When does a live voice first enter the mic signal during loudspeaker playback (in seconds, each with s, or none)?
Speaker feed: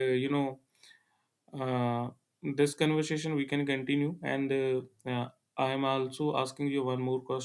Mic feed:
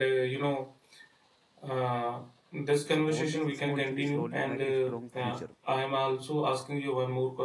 2.9 s